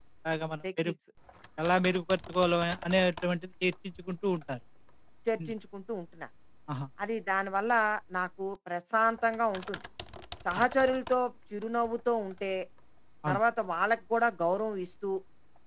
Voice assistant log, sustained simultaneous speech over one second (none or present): none